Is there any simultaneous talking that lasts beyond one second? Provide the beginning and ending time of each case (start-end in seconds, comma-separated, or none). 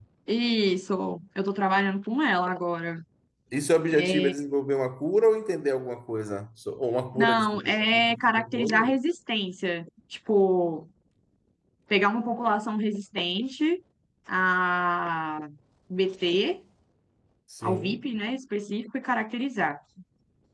7.2-8.9